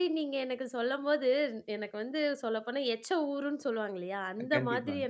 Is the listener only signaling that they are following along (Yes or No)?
Yes